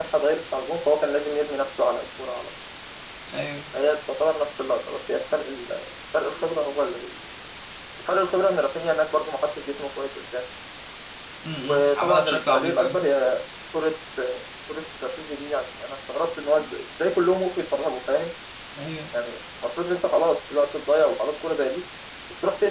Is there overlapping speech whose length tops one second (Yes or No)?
Yes